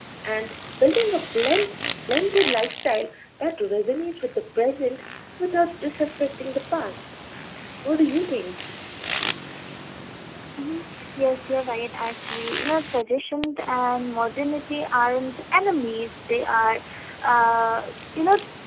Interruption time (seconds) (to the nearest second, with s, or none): none